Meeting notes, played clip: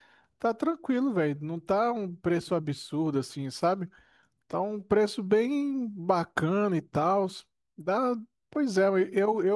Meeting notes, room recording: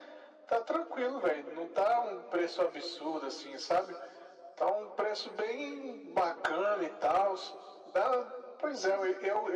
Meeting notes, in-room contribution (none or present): none